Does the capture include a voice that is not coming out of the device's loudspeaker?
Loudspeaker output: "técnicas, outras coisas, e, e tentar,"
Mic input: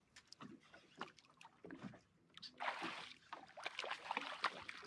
No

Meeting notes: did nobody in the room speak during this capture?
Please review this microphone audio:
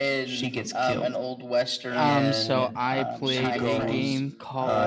No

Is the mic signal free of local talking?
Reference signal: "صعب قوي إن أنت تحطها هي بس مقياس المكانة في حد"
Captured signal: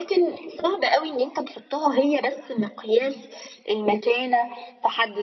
Yes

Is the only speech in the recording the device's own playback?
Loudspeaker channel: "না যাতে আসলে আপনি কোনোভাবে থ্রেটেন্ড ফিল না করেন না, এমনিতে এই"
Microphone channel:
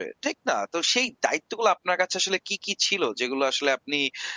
No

